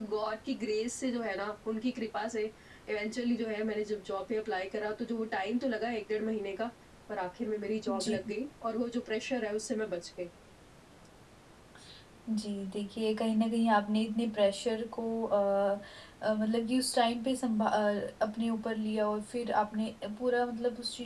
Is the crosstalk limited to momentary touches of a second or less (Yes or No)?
Yes